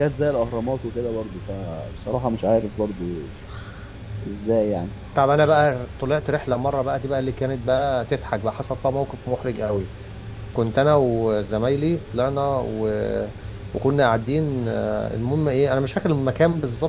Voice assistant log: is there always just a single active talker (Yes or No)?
Yes